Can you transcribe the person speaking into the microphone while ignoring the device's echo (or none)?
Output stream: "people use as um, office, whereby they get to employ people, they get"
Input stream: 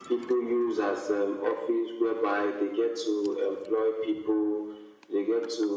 none